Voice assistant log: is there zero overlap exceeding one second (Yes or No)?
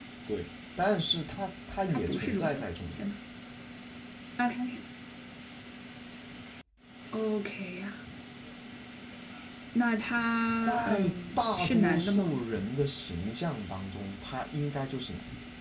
No